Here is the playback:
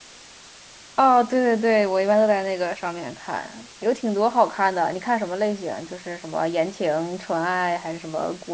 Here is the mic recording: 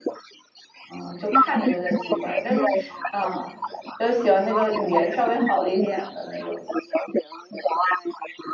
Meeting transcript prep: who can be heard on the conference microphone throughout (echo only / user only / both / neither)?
both